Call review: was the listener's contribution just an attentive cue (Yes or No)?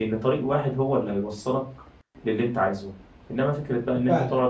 Yes